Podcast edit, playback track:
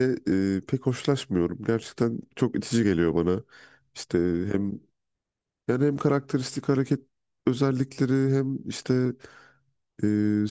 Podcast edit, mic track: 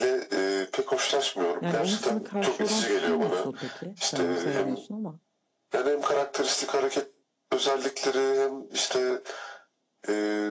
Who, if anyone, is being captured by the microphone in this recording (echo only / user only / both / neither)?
both